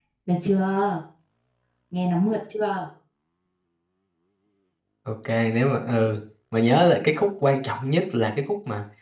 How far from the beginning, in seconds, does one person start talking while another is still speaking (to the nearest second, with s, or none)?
none